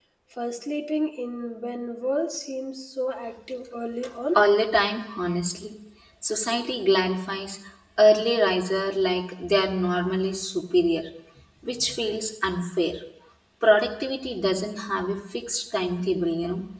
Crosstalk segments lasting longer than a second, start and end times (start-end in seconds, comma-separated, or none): none